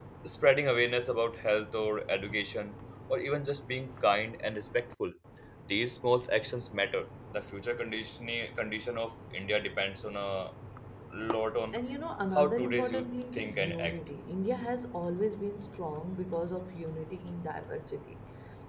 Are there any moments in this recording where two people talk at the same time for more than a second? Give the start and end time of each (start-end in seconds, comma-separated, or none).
12.3-14.0